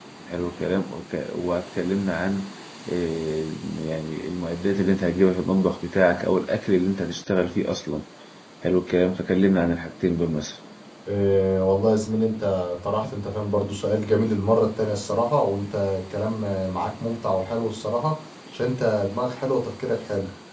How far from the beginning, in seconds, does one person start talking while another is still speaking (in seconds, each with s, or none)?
none